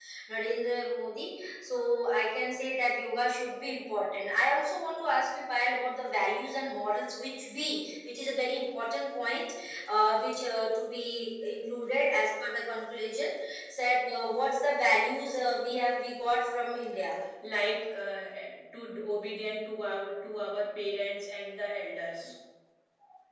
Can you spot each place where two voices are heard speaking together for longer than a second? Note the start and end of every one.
none

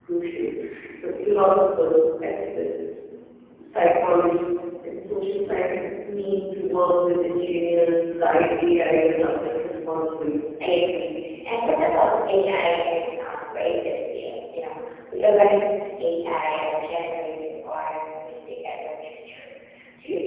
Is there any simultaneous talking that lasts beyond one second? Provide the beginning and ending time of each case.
none

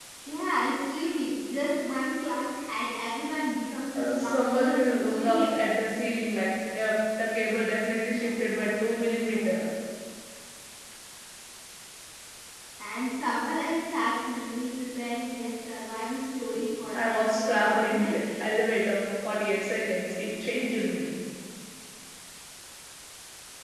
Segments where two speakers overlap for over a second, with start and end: 4.0-5.4, 16.9-18.2

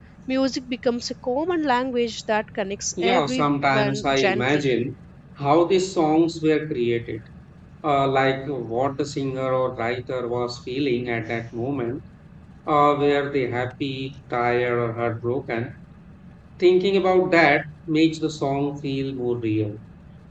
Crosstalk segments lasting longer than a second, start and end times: 3.0-4.6

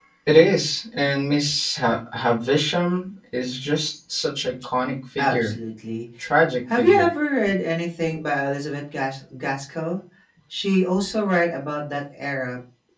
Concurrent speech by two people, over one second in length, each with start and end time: none

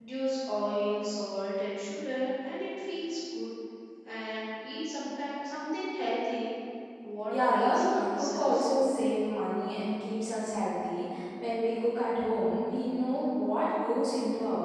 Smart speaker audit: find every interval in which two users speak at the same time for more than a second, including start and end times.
7.3-8.7

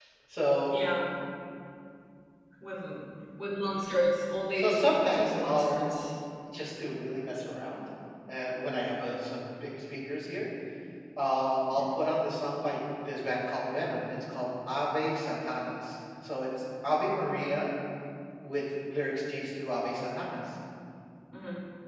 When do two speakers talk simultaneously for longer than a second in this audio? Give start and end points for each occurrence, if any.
4.6-5.8

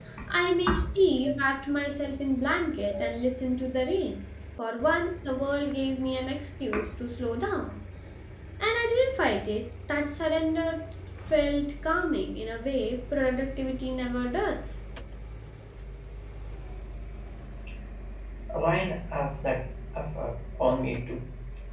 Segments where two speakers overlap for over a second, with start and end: none

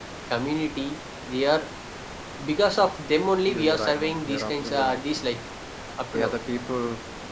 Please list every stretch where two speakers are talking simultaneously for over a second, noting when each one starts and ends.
3.5-5.2

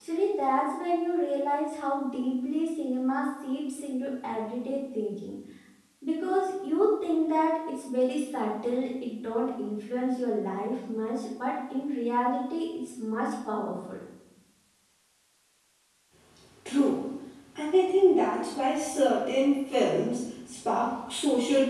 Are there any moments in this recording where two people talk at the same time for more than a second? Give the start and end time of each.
none

